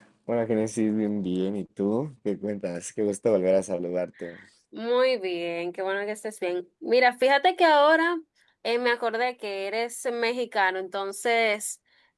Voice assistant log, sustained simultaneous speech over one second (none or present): none